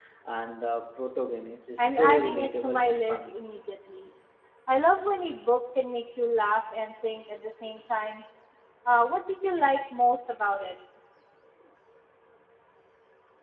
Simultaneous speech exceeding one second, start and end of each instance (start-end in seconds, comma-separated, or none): 1.8-3.4